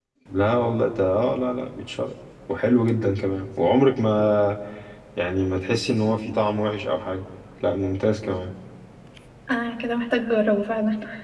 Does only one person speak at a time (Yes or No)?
Yes